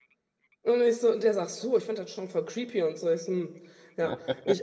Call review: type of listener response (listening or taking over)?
listening